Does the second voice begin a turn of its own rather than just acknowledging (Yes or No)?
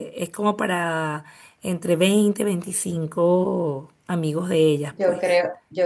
Yes